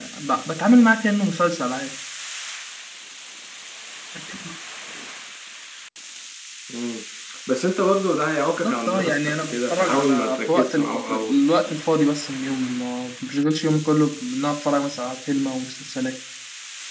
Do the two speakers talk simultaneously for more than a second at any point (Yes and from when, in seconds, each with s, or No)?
Yes, from 8.5 s